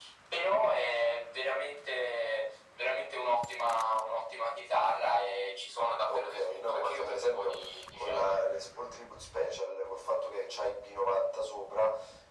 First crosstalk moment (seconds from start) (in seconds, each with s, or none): 6.1 s